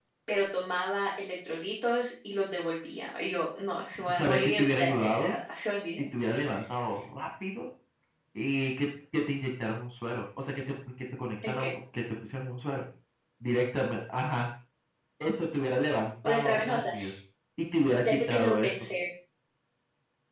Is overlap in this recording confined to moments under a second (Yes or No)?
No